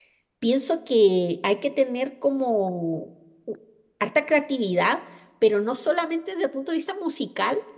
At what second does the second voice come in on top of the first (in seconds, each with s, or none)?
none